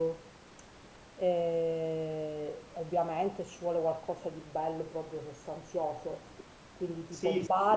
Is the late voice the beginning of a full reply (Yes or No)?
Yes